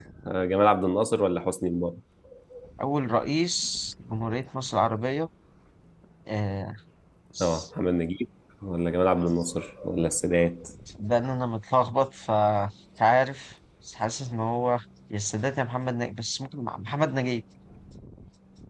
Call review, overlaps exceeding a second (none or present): none